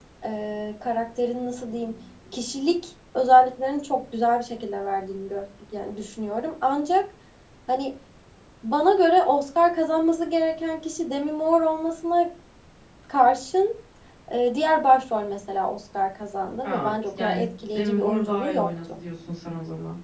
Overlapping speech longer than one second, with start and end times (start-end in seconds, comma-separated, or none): 16.6-19.0